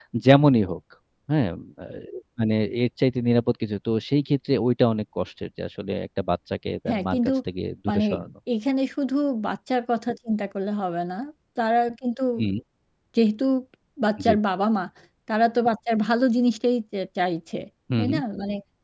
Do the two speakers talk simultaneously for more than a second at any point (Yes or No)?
No